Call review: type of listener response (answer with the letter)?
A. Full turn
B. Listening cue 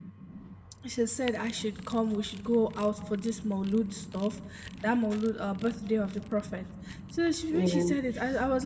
B